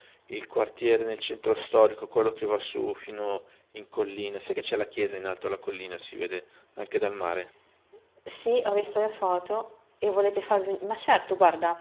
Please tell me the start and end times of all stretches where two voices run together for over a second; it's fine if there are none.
none

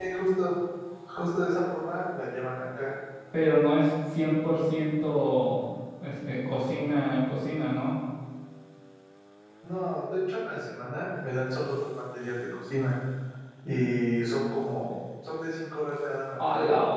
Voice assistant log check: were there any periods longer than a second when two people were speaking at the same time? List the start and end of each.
none

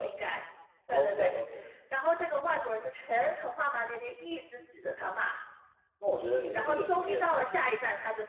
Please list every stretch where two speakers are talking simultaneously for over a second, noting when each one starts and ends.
6.5-7.8

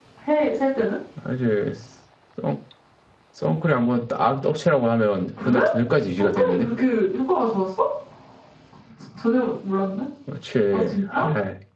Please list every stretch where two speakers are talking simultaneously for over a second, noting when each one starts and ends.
none

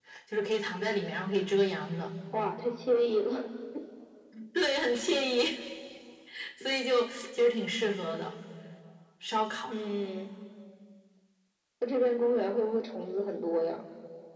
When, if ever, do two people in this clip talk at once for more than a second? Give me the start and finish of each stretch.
none

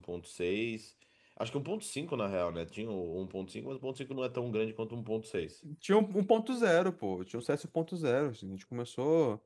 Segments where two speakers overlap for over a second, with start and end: none

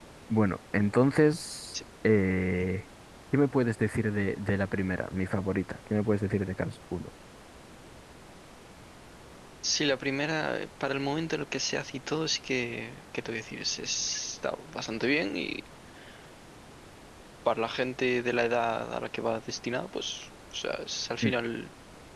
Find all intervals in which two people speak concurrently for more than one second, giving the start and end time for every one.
none

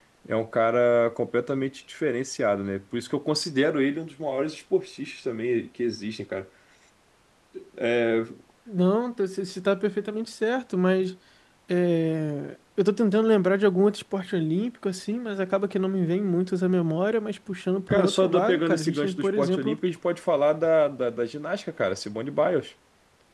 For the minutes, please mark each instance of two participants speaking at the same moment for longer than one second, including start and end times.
17.9-19.8

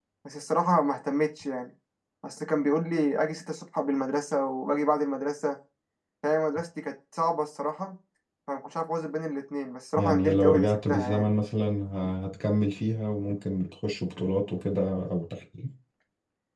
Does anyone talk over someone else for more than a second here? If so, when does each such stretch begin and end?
10.0-11.3

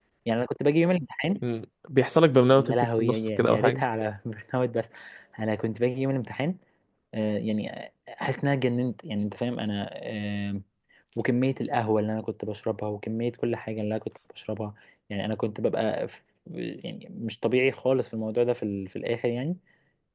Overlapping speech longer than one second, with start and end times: 2.6-3.8

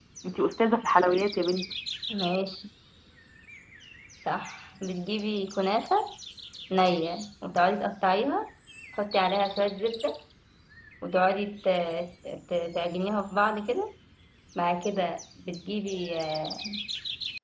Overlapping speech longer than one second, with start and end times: none

